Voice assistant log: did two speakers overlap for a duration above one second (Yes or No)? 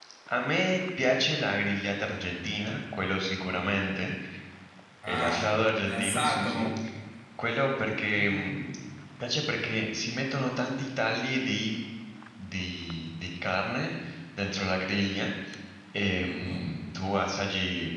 Yes